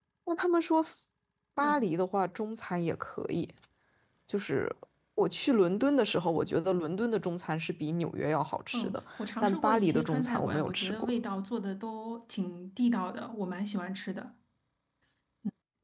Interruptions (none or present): present